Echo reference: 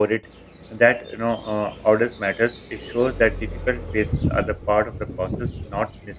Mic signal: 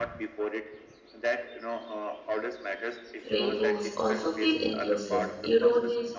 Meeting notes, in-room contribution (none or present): present